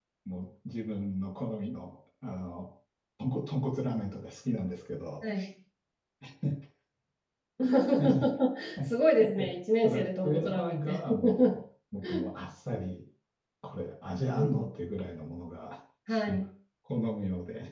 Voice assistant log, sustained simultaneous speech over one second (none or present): present